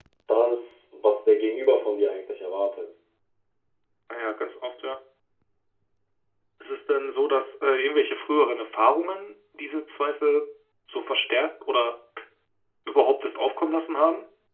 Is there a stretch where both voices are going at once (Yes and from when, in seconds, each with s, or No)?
No